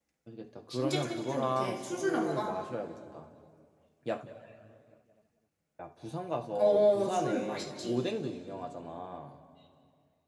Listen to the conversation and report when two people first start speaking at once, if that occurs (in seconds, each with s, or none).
0.7 s